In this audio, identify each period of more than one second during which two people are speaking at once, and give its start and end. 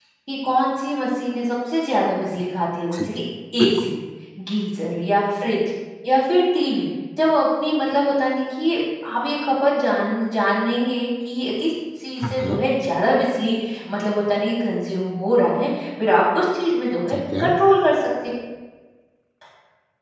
none

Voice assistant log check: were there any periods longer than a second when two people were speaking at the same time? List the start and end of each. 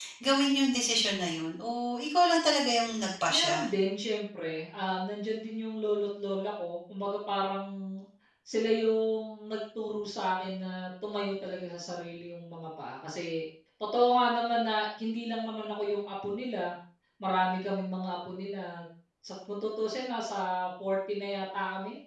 none

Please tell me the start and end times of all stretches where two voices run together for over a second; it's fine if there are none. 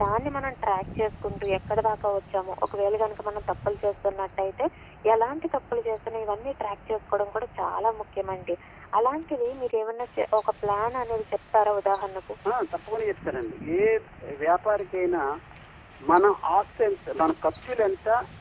none

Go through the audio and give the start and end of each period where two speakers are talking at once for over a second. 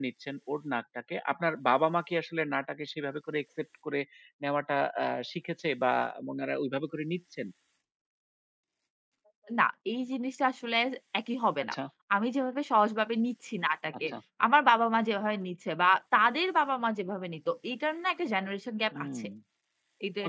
none

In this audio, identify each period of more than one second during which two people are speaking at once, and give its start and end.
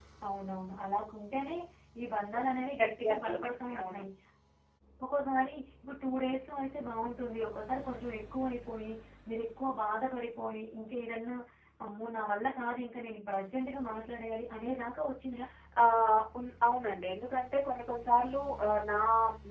2.8-4.0

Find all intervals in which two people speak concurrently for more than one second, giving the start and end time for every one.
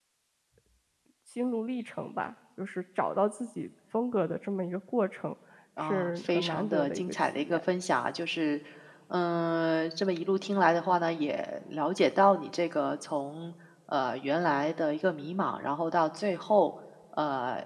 5.8-7.6

